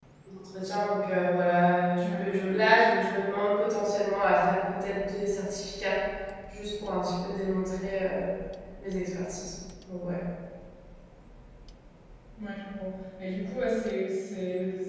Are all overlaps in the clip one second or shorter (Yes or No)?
Yes